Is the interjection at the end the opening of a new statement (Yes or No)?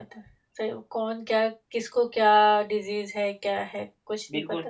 Yes